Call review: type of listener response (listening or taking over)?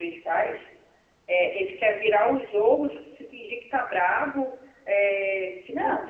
listening